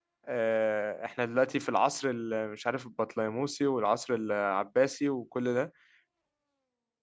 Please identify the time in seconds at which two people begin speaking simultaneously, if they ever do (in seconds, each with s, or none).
none